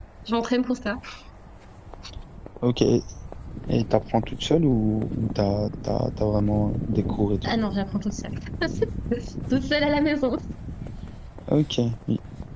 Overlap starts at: none

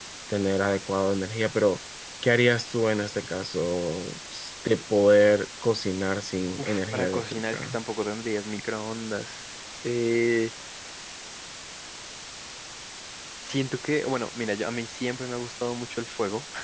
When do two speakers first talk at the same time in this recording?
6.6 s

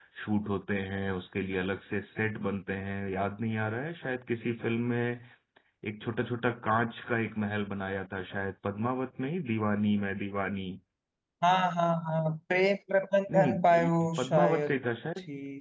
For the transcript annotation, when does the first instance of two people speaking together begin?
13.3 s

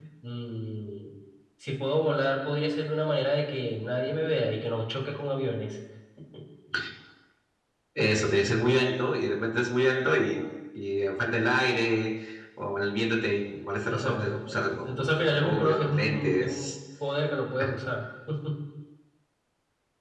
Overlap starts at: 13.9 s

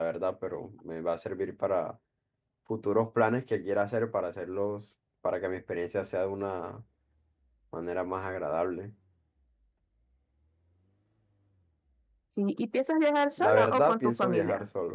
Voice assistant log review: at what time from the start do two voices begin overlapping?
13.4 s

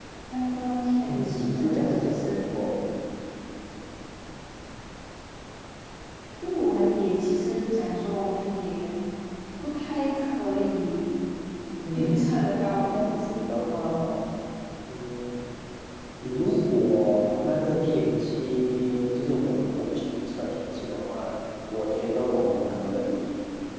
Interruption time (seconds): 1.1 s

